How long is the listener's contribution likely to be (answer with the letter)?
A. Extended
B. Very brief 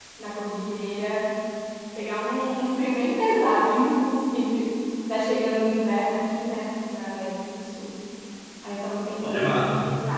B